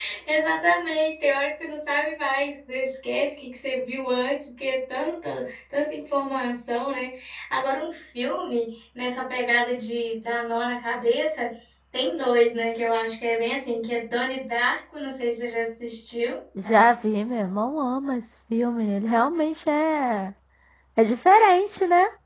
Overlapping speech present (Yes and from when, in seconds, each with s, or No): No